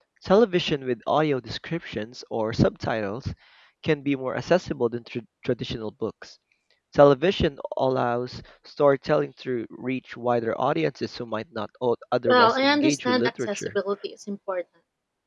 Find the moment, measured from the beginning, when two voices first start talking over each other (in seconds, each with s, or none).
12.3 s